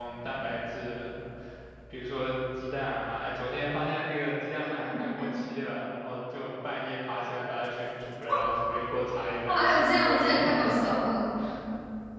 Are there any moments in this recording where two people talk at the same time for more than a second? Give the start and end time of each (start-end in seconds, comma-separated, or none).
9.5-10.8